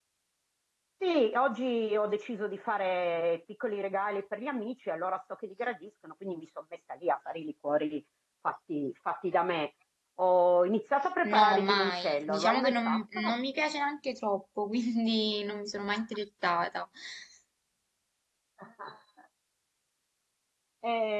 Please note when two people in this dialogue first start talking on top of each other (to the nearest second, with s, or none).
11 s